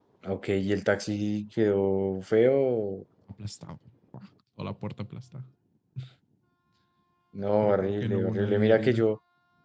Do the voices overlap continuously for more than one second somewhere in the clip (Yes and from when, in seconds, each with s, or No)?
Yes, from 7.6 s